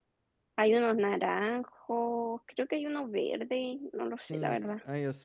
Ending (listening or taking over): taking over